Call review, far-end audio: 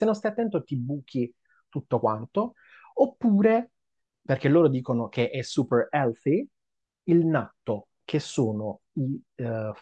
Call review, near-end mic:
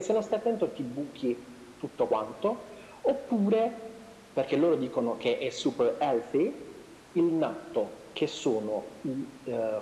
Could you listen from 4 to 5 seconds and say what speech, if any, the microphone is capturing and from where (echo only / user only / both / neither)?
echo only